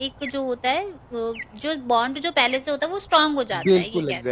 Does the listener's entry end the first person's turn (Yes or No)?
Yes